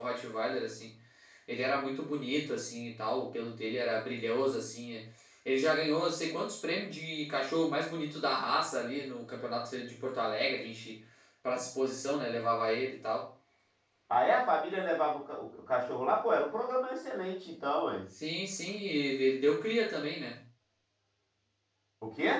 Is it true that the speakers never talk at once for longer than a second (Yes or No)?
Yes